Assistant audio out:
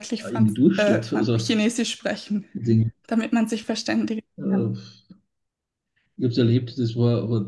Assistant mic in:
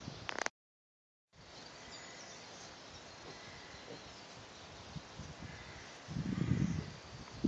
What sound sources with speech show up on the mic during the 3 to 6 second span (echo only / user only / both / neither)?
neither